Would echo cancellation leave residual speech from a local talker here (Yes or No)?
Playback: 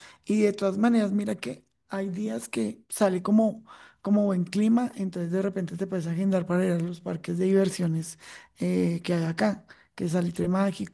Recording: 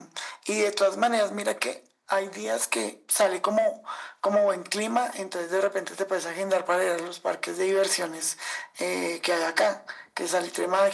No